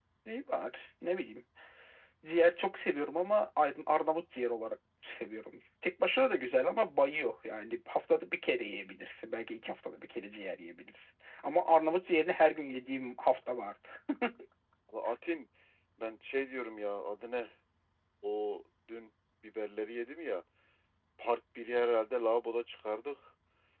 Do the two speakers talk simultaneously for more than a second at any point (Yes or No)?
No